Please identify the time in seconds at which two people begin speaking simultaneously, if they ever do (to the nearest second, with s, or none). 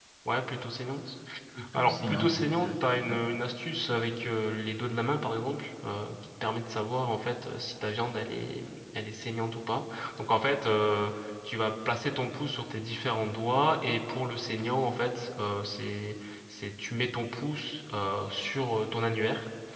2 s